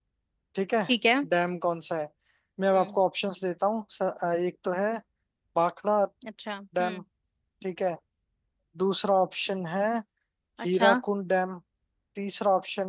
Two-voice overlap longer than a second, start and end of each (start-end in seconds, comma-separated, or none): none